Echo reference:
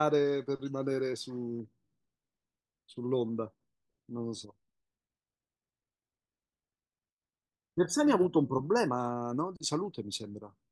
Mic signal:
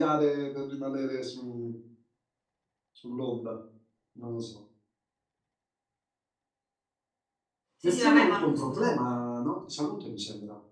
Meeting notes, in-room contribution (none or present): present